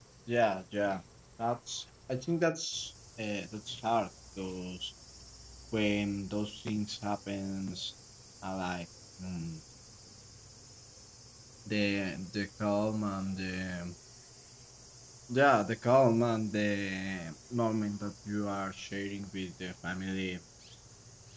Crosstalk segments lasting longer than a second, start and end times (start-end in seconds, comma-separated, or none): none